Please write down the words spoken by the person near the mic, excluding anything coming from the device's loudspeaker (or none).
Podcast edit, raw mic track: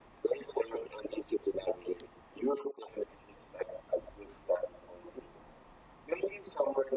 none